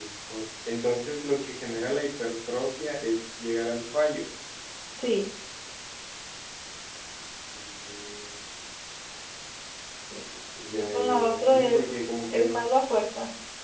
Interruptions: present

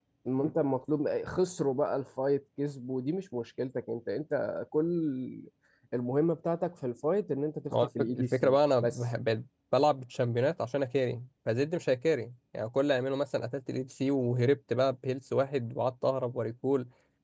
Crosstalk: present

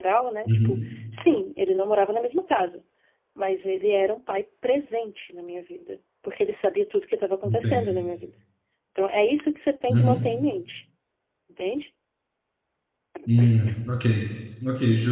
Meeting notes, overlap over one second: none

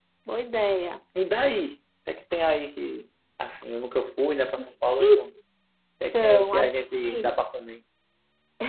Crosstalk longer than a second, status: present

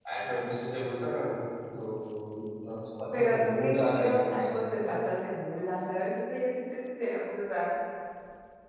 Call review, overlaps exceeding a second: present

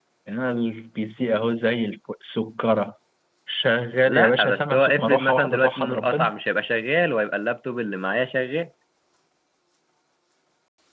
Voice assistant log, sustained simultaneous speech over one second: present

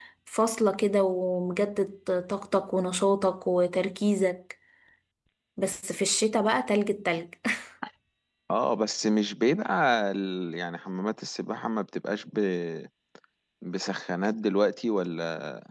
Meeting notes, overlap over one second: none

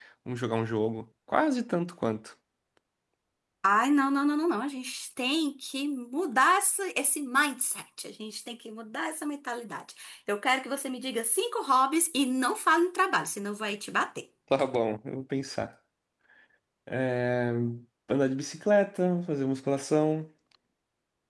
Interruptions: none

